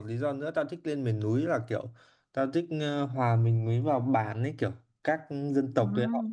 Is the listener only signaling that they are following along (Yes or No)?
Yes